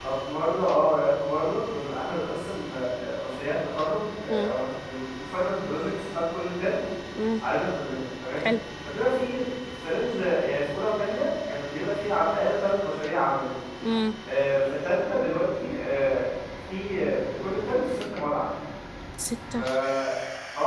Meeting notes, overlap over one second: none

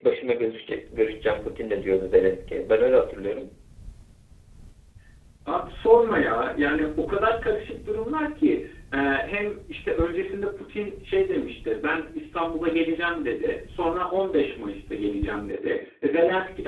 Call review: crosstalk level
none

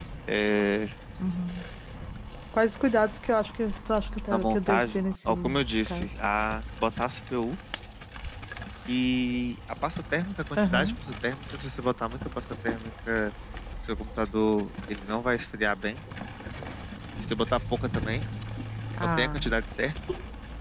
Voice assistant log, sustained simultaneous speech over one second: present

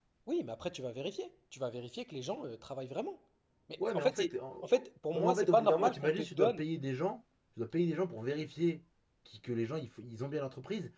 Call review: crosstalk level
present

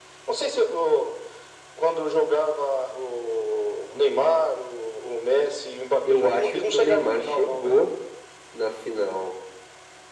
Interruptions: present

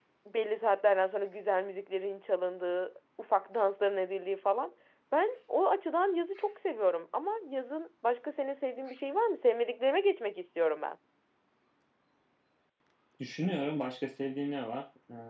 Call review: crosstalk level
none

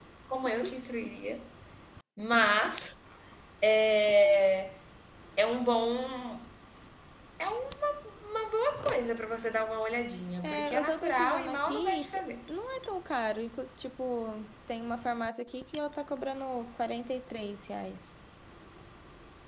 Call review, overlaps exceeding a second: present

